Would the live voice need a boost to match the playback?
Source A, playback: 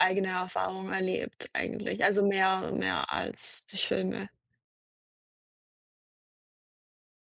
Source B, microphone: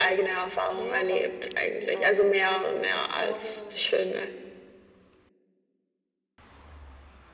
Yes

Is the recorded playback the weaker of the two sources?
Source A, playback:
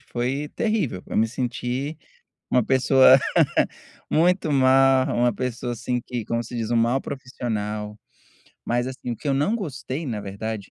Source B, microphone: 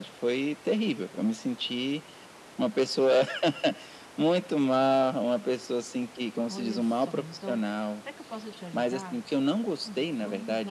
No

